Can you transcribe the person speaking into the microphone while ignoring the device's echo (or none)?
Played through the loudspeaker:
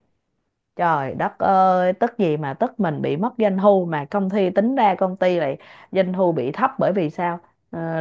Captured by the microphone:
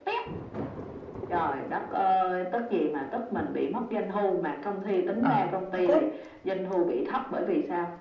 ờ hồi cuối